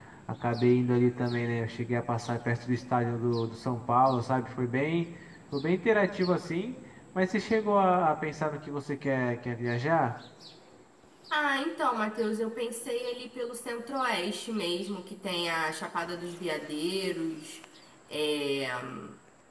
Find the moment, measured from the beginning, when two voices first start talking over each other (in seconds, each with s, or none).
none